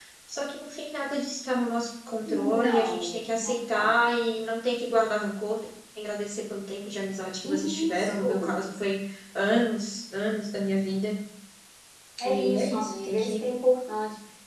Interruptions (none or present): present